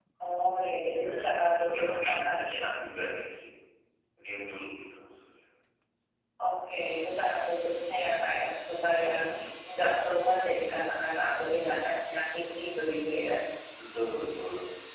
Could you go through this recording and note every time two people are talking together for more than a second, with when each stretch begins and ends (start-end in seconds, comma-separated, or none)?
0.8-2.4